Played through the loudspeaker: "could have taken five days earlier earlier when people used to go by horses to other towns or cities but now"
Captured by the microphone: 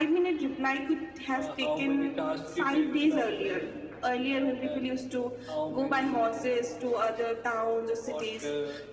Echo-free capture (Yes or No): No